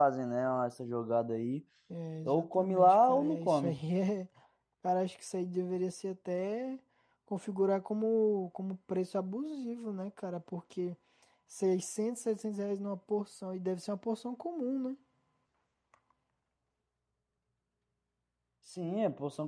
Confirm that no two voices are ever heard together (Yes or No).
No